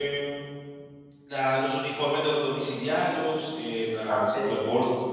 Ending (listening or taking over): listening